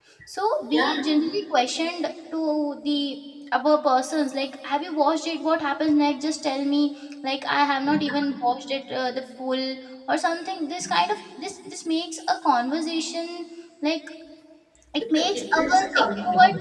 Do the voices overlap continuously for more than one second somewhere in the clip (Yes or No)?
Yes